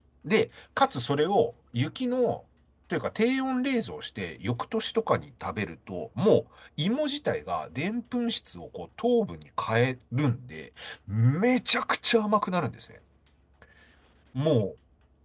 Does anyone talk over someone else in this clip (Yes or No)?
No